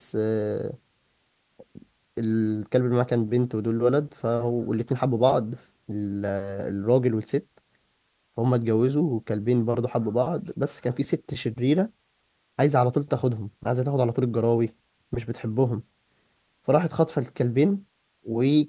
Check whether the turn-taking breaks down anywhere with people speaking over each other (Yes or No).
No